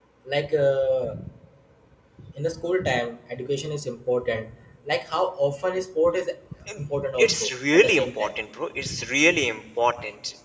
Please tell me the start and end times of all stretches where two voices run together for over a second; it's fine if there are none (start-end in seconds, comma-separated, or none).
6.8-8.3